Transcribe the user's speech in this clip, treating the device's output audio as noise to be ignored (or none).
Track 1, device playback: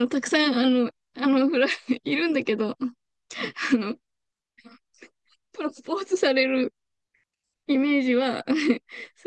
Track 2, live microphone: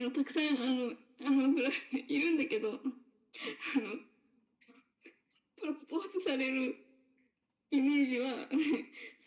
none